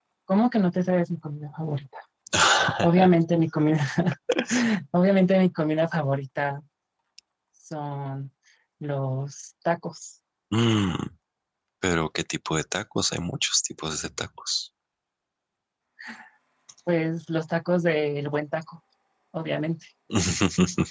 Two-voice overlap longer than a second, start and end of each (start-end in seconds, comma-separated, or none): none